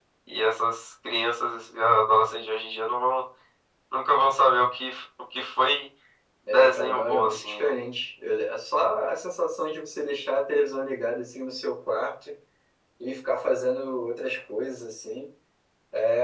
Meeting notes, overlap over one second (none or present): present